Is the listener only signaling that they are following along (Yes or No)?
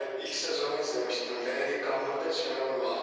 No